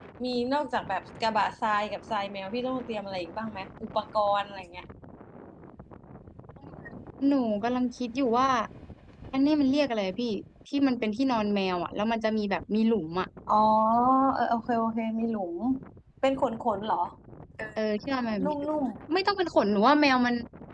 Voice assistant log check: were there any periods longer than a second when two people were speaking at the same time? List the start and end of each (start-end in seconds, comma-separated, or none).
none